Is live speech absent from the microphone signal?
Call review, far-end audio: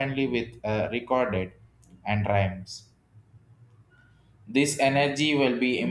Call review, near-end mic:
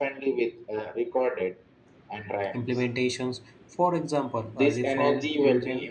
No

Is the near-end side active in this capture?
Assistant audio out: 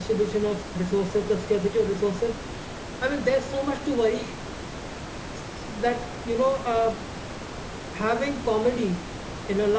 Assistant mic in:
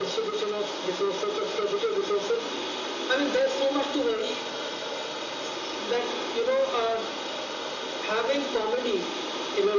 No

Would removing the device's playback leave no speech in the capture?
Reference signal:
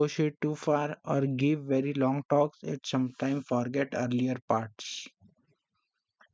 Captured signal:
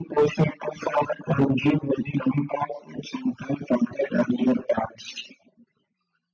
Yes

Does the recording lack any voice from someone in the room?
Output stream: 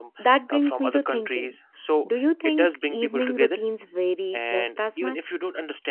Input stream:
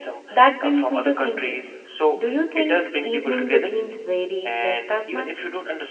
Yes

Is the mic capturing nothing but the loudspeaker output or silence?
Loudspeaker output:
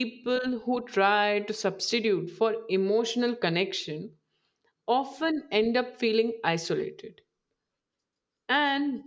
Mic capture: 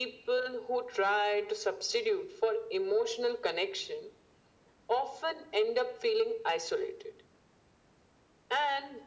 Yes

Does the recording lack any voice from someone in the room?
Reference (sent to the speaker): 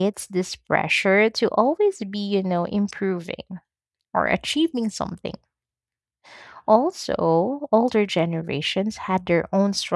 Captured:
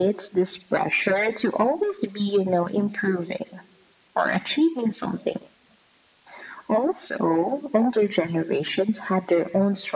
Yes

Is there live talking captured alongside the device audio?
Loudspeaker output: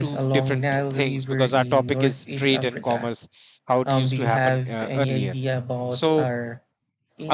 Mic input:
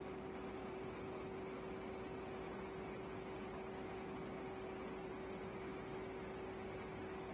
No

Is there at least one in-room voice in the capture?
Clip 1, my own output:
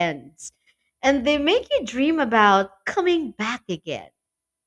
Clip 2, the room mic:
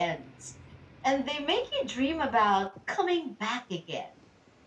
No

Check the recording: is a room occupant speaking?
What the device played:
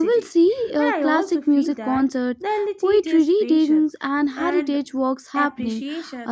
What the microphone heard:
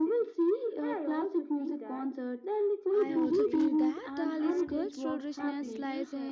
Yes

